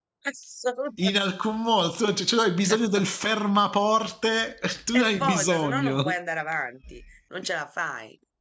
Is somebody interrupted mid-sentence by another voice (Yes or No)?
Yes